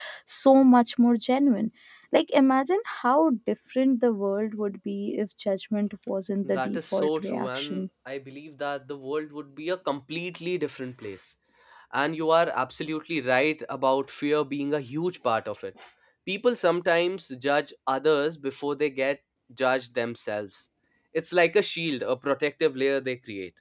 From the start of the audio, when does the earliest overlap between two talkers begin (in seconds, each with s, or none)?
6.4 s